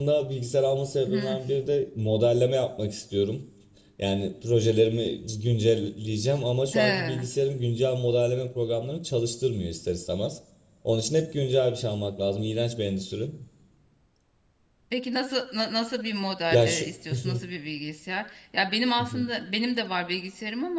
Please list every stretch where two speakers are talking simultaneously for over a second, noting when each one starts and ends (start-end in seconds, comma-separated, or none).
none